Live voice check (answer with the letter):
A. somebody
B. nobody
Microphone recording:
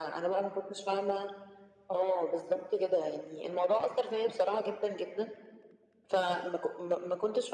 B